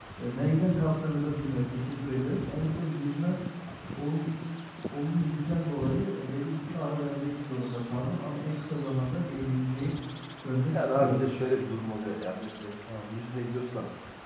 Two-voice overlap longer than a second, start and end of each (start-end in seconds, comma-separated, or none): none